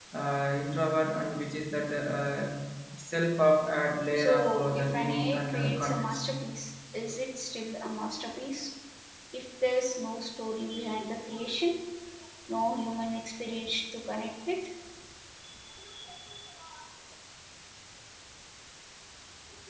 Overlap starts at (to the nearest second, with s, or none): 4 s